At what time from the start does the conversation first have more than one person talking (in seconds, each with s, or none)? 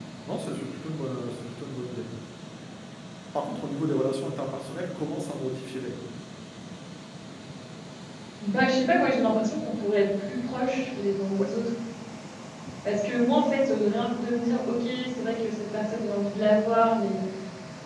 none